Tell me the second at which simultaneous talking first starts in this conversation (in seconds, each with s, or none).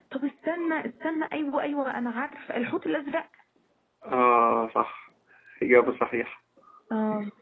none